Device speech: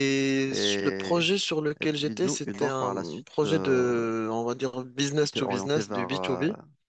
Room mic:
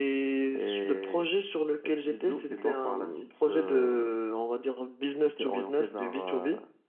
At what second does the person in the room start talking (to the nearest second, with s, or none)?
none